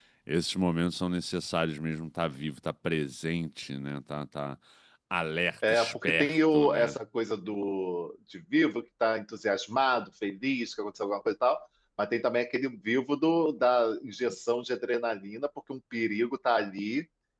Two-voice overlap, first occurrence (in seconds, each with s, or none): 5.7 s